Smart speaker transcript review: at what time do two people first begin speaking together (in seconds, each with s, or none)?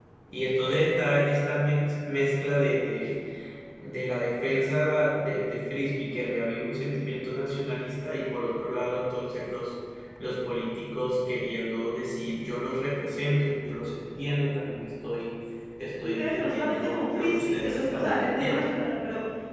16.0 s